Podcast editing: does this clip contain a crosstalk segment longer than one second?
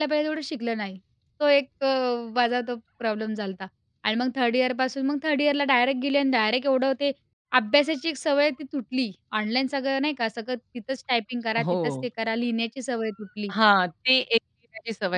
No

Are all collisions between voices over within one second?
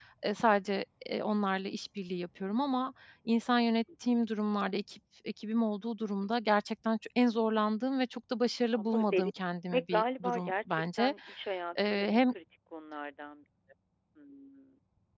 No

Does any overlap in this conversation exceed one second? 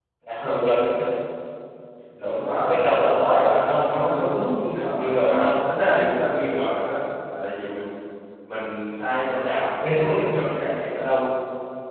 Yes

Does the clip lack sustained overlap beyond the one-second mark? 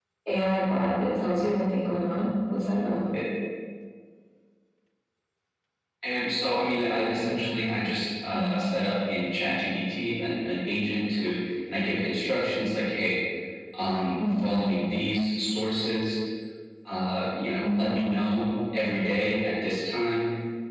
Yes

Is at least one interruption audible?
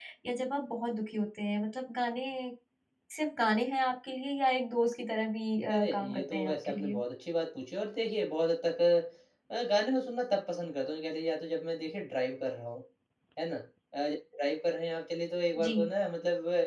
Yes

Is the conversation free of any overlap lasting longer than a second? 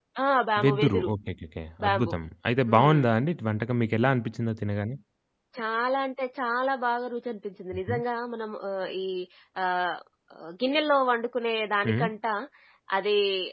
Yes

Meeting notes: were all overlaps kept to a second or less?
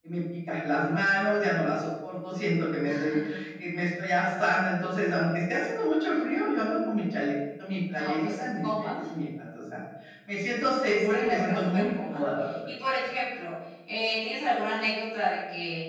No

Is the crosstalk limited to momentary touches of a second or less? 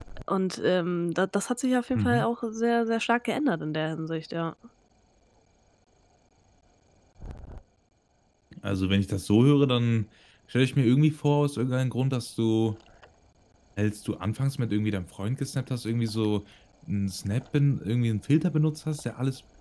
Yes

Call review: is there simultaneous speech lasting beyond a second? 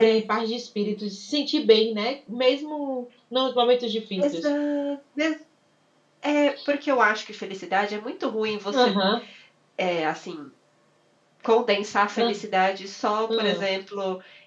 No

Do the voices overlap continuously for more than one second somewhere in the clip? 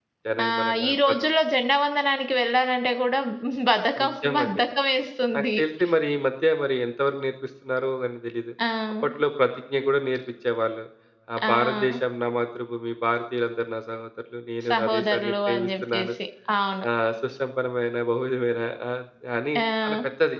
Yes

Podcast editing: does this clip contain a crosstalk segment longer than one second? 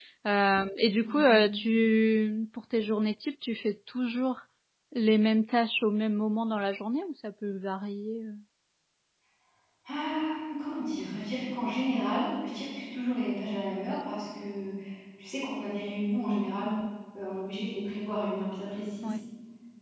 No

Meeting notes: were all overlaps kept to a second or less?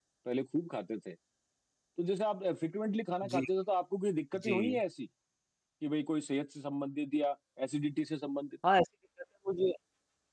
Yes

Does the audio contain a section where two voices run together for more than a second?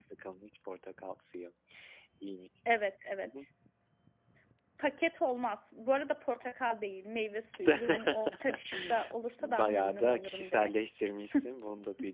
Yes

